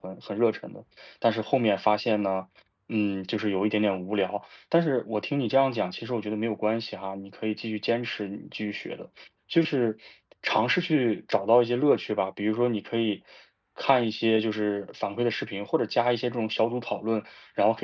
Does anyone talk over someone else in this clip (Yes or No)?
No